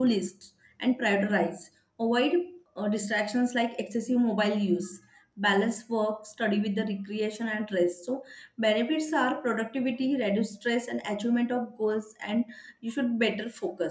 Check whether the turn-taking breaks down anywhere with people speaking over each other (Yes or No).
No